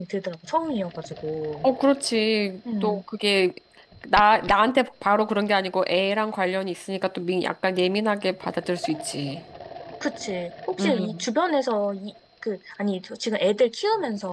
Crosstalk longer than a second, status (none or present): none